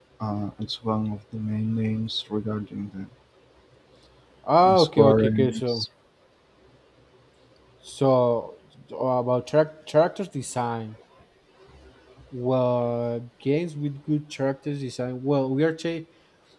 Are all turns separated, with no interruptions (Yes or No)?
No